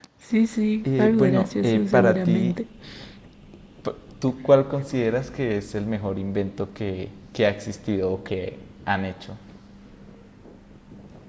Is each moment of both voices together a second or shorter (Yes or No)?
No